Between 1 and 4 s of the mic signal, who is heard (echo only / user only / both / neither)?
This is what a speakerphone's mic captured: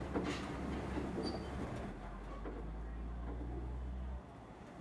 neither